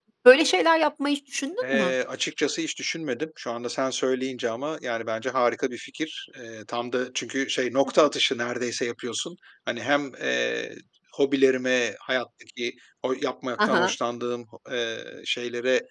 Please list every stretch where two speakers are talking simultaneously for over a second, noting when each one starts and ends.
none

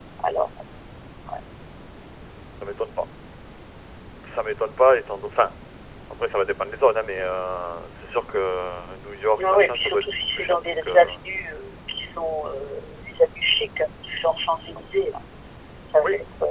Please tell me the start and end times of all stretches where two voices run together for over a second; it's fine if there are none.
9.4-11.0

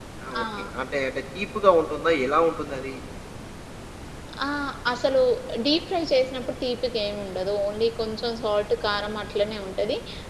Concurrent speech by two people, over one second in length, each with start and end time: none

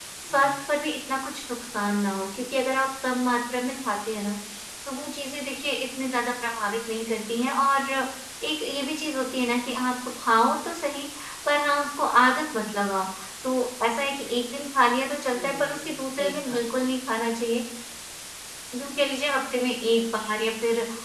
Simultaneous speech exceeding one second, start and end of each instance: 15.3-16.6

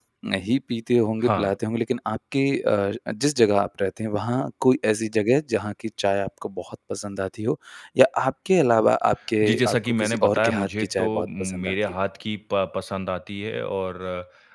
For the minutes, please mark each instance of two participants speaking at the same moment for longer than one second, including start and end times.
9.4-11.7

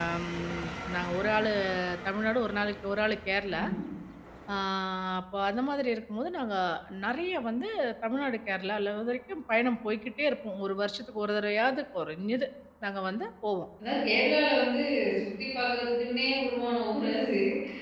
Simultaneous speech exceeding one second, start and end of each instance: none

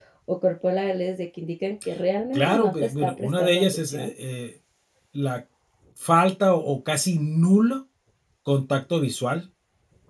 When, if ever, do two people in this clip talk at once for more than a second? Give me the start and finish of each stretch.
2.3-4.1

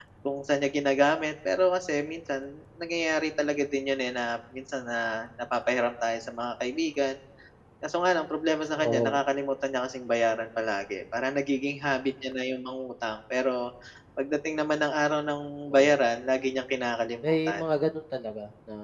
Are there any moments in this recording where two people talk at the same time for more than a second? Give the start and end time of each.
none

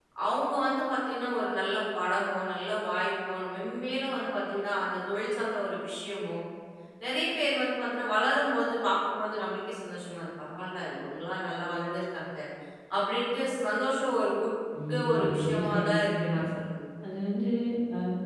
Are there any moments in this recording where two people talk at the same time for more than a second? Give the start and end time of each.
15.1-16.4

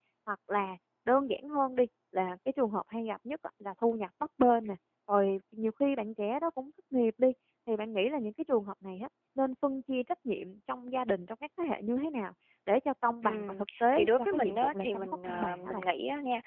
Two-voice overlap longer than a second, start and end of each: 13.2-15.8

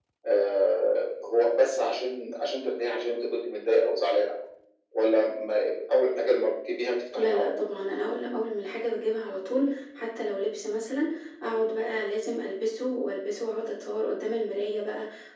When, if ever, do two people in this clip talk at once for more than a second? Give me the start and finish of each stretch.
none

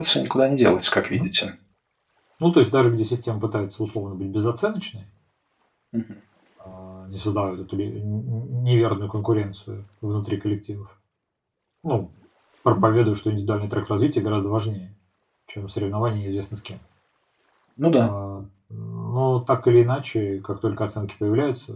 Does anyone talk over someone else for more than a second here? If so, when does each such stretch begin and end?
none

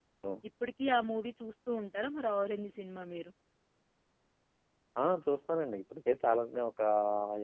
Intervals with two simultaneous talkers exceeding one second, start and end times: none

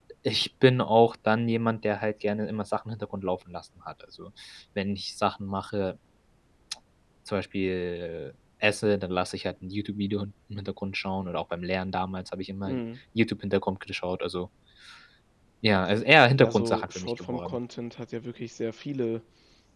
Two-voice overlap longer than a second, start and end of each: 16.4-17.6

